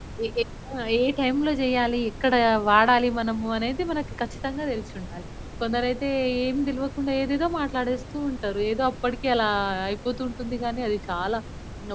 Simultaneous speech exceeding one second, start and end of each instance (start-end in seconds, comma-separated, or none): none